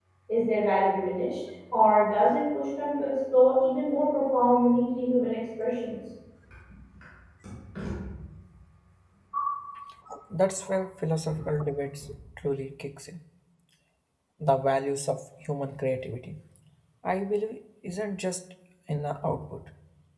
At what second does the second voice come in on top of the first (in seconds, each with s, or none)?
none